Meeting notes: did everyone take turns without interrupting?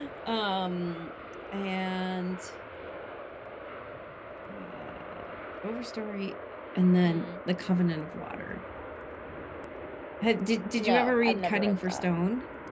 No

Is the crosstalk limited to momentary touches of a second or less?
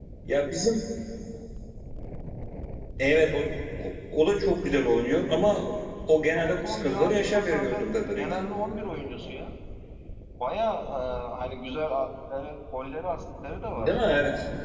No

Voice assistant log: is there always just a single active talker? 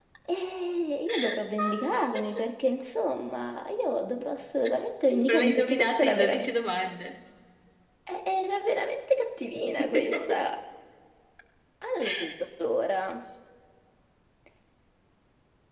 No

